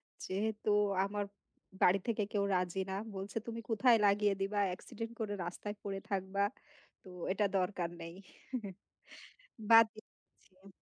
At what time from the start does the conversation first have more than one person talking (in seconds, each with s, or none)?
none